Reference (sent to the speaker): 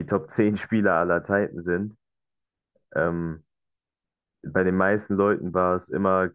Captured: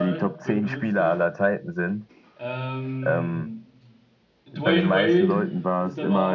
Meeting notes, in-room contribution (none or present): present